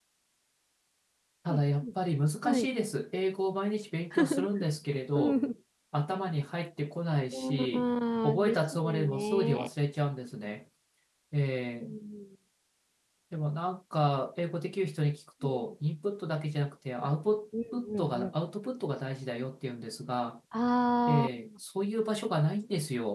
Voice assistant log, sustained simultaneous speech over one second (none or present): present